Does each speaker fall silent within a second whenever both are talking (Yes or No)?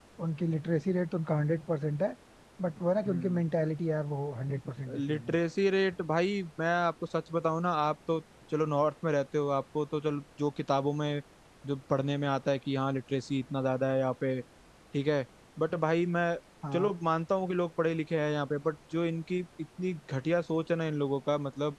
Yes